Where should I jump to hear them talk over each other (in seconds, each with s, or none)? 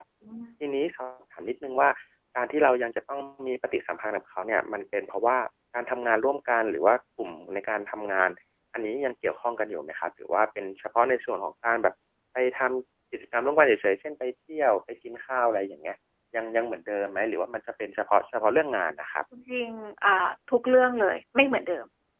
none